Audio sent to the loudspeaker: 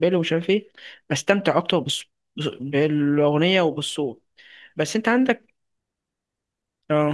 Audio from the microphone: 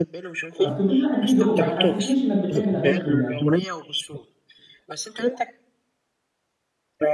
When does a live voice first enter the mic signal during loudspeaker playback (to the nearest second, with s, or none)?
1 s